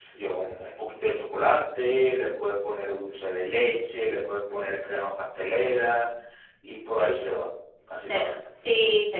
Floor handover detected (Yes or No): Yes